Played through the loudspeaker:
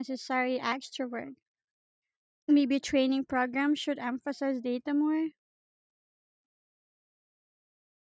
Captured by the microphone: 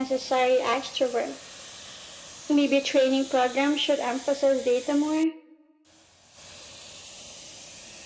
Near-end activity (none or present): none